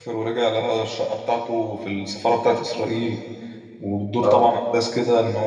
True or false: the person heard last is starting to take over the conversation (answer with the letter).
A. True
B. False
B